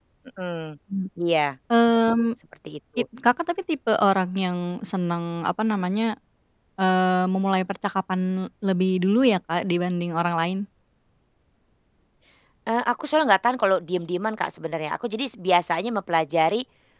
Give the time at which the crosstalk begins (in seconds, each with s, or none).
none